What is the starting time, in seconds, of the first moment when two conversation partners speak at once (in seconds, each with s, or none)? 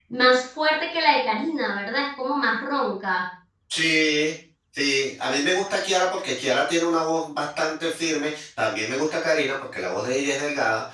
none